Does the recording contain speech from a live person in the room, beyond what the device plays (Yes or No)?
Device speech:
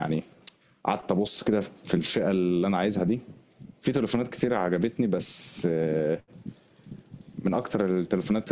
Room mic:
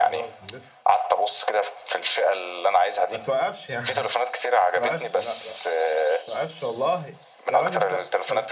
Yes